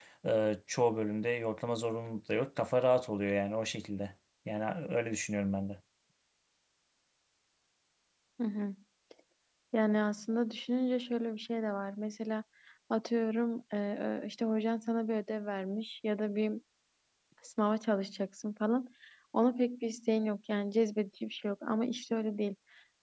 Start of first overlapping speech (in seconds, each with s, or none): none